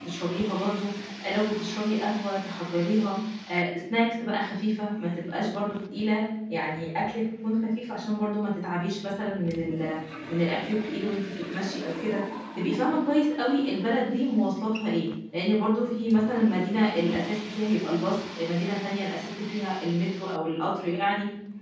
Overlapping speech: No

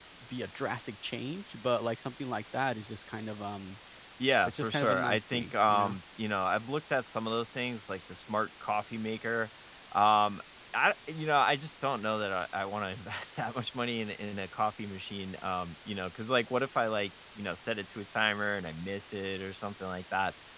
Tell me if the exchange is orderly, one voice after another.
No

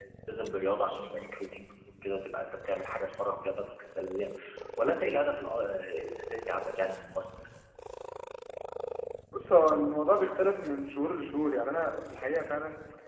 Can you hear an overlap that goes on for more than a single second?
No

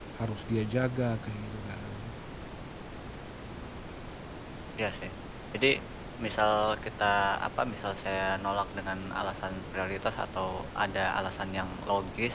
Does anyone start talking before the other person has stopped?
No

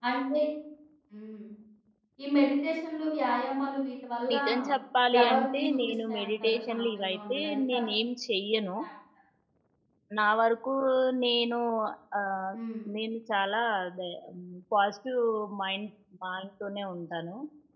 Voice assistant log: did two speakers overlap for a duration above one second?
Yes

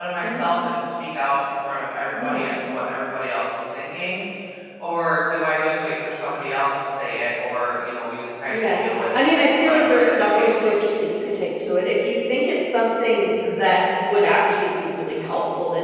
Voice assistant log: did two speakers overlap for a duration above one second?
Yes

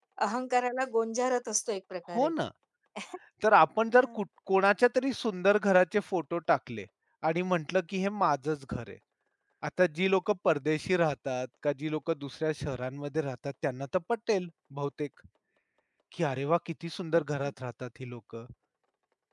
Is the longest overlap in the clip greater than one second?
No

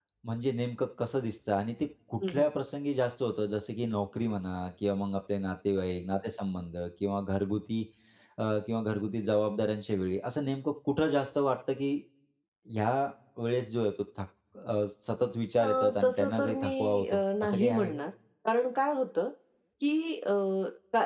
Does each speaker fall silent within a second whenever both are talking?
No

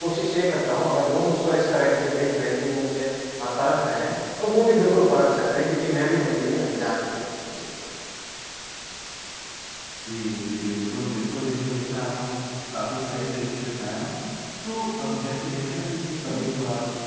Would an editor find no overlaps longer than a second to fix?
Yes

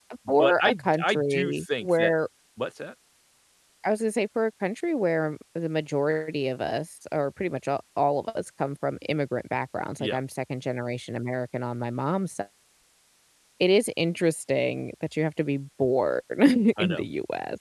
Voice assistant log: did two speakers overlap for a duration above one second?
Yes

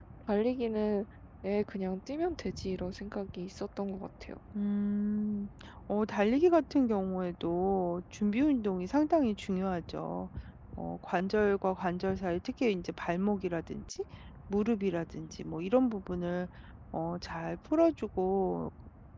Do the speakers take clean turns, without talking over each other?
Yes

